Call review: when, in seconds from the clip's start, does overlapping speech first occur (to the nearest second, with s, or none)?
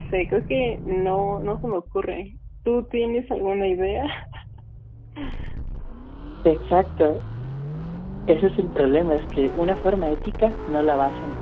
none